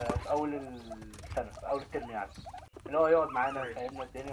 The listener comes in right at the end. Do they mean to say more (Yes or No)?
No